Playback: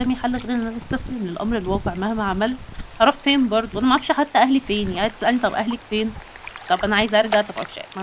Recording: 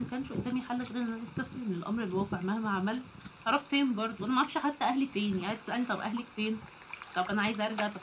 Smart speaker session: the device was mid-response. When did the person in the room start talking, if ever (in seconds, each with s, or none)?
none